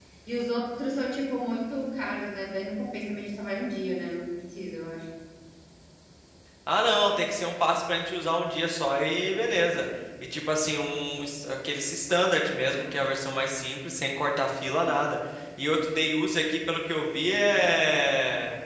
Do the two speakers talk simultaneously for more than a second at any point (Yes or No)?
No